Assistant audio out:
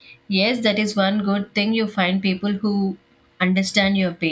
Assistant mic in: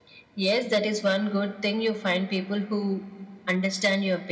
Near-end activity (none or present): none